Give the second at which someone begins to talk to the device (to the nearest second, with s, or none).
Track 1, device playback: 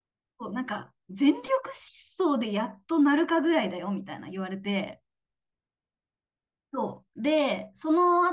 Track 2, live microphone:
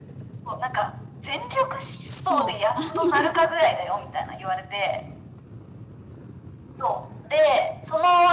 2 s